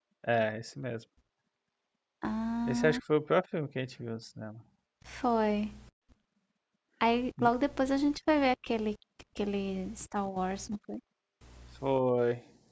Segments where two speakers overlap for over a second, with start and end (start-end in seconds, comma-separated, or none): none